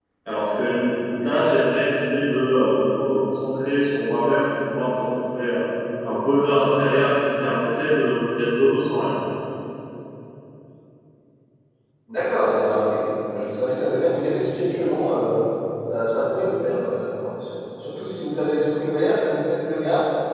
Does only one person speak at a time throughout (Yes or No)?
Yes